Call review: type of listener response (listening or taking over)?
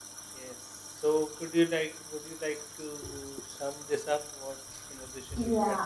taking over